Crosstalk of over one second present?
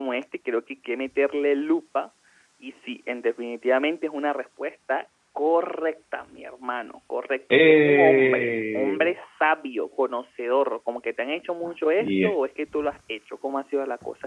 Yes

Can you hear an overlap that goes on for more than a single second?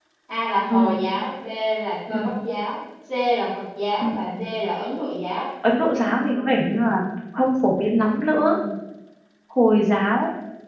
No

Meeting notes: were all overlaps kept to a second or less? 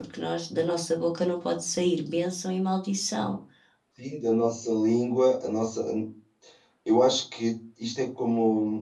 Yes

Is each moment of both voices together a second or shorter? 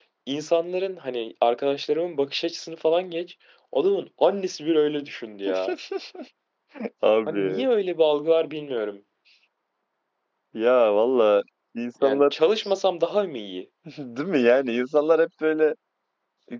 Yes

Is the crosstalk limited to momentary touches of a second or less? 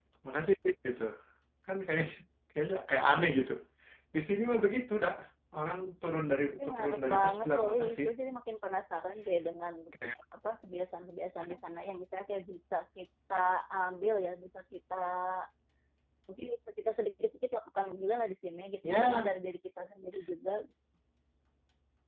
No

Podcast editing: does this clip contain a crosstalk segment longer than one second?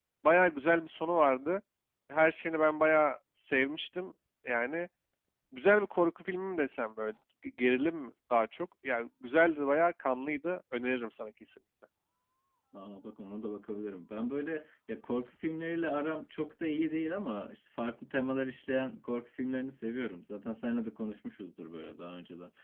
No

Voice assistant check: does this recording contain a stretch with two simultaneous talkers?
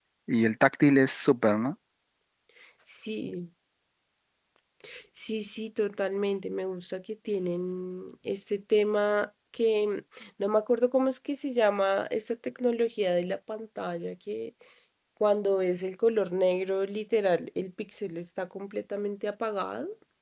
No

